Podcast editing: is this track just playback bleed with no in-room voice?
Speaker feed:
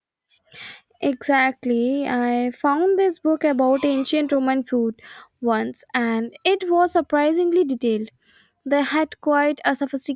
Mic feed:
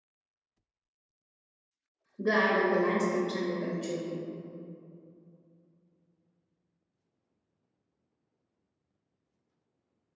No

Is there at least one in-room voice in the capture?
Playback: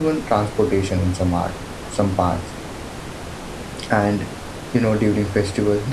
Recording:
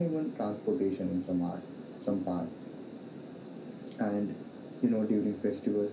No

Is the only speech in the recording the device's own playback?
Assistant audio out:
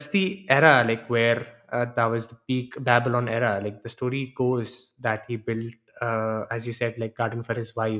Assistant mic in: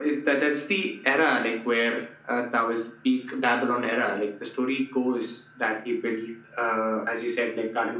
Yes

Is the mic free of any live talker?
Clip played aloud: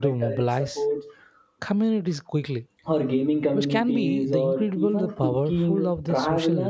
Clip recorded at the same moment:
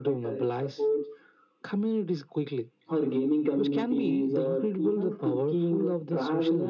Yes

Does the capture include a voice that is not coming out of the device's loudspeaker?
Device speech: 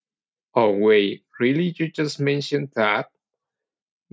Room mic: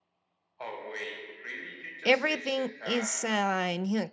Yes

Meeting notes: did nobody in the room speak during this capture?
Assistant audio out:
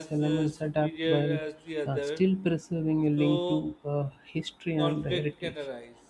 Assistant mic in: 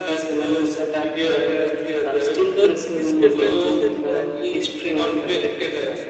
No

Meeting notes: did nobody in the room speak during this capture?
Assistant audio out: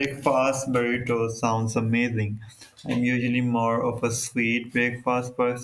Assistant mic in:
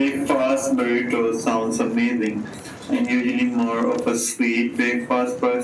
Yes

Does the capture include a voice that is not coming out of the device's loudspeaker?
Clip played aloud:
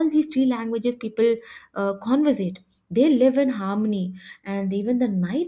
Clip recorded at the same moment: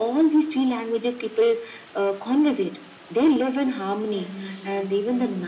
Yes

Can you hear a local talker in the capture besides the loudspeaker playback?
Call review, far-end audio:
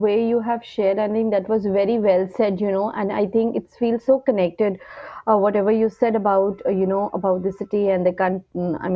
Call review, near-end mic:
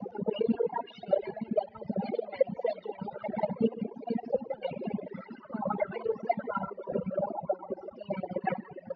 No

